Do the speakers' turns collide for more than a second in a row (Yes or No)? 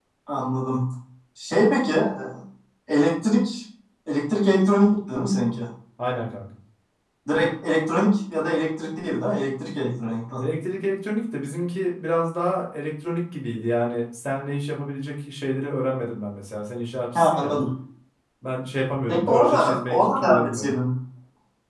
Yes